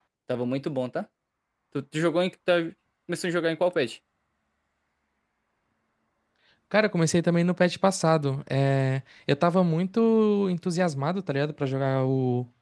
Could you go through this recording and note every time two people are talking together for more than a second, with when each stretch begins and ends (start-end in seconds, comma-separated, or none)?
none